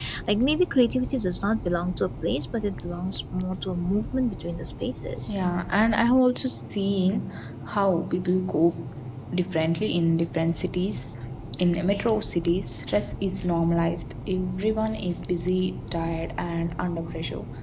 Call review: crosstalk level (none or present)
none